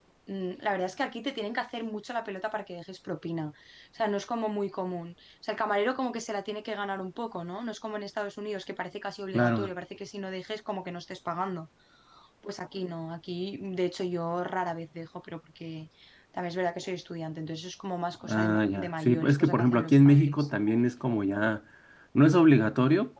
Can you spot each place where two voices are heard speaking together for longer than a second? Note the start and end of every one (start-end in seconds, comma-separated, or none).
18.3-20.5